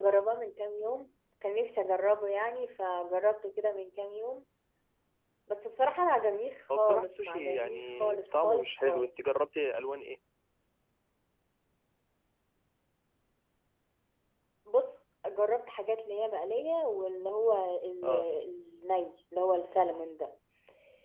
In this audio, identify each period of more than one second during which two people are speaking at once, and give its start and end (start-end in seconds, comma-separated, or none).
6.8-9.1